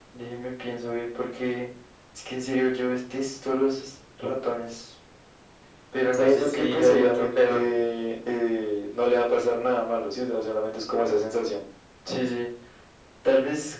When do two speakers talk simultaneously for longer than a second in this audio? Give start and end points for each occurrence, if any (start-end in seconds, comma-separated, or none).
6.1-7.6